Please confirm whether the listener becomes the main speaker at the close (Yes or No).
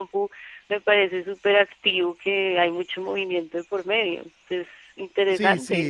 Yes